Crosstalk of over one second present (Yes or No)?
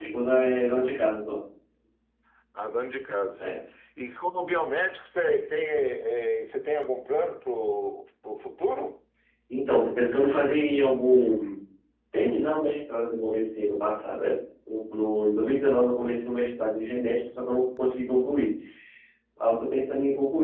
No